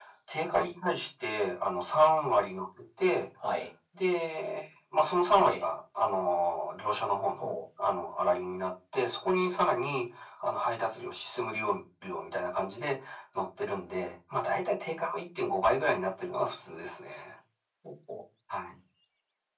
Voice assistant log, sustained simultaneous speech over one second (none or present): none